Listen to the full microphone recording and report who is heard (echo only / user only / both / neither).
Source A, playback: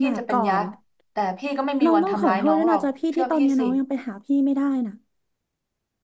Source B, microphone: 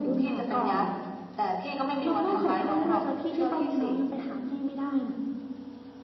echo only